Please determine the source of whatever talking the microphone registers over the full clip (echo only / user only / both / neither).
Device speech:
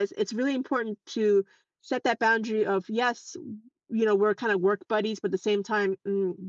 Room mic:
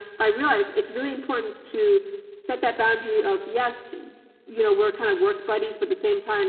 echo only